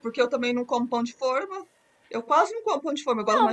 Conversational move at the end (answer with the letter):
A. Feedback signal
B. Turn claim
B